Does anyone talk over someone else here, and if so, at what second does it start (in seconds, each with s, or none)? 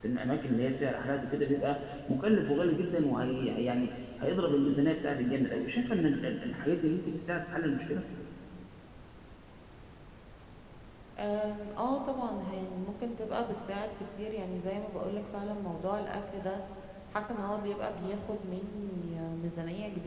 none